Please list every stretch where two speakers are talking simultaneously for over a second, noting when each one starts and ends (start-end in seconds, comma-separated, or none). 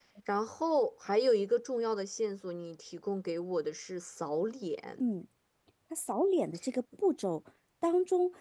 none